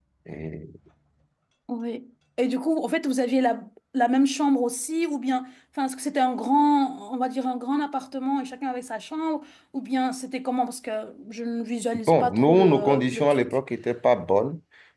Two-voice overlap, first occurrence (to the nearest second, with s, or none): 12 s